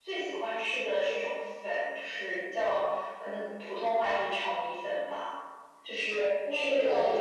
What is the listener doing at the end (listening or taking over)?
listening